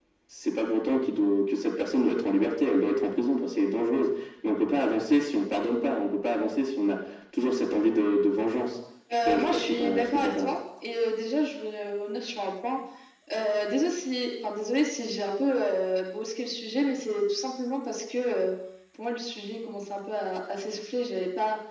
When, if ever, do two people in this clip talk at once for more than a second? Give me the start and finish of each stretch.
9.1-10.5

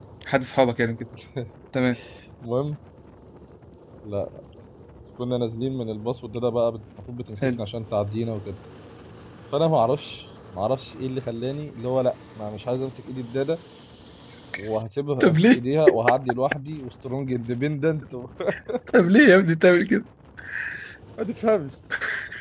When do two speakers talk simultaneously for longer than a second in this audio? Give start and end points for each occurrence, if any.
none

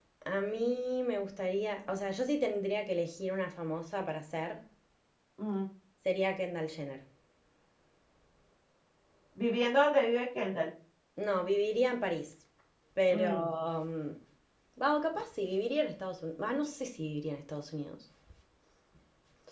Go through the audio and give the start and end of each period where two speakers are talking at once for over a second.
none

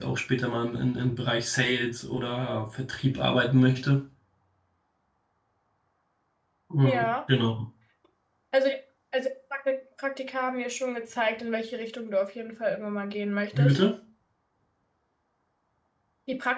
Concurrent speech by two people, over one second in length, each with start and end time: none

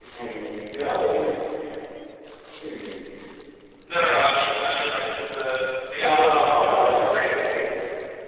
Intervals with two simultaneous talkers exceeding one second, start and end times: 6.0-7.6

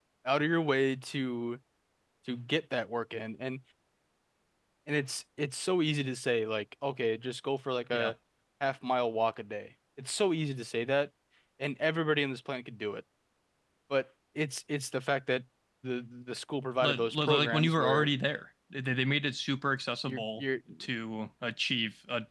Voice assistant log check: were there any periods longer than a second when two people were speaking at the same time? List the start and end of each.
16.8-18.1

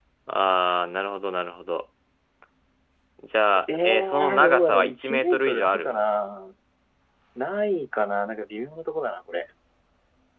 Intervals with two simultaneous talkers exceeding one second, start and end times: 3.8-6.0

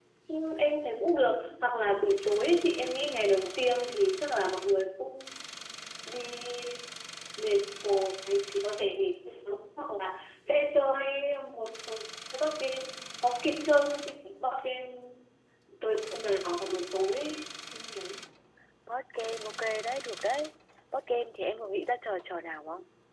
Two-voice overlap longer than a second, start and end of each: none

